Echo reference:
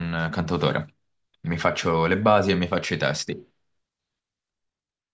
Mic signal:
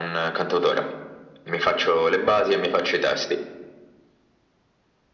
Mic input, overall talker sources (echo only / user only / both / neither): echo only